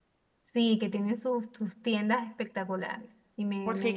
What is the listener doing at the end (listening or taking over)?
taking over